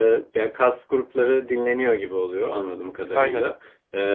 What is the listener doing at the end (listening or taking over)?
listening